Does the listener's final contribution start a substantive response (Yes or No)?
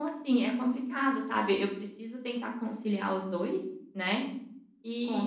No